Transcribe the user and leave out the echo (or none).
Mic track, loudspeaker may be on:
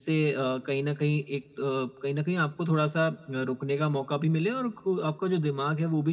none